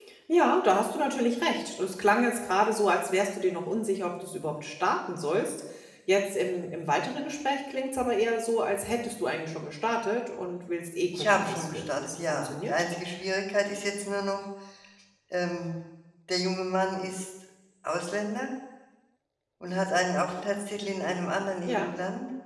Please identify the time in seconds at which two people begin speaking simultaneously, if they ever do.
11.1 s

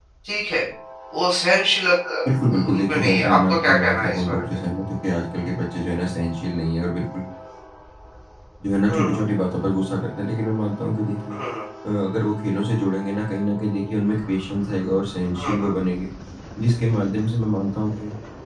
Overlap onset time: 2.7 s

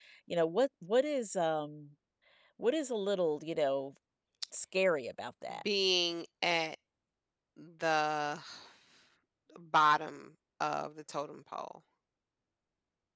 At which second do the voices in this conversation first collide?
none

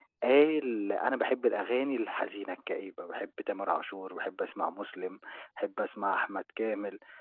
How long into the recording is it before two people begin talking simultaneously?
none

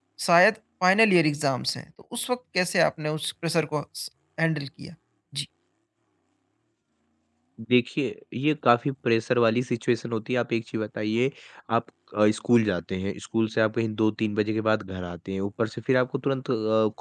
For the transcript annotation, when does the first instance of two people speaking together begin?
none

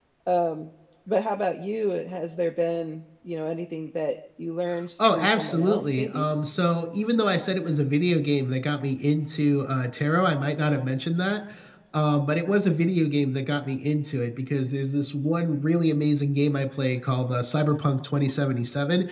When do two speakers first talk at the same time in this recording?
5.0 s

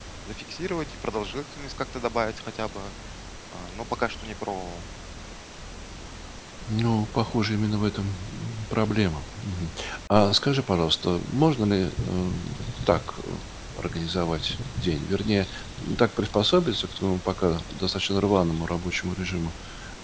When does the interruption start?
none

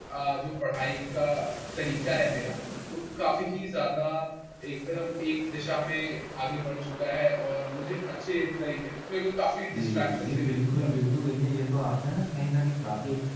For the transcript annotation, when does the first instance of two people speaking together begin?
9.7 s

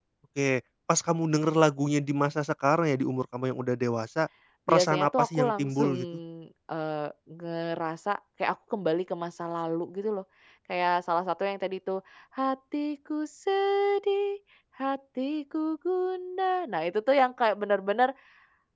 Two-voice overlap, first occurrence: 4.7 s

